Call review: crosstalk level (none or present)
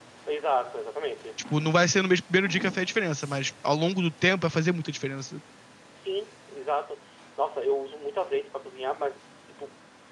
none